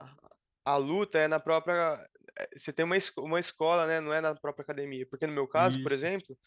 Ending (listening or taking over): listening